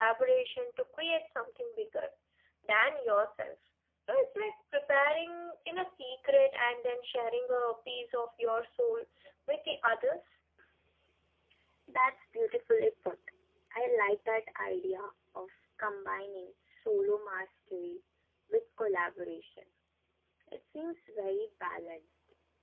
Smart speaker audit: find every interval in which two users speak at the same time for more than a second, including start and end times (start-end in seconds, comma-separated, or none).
none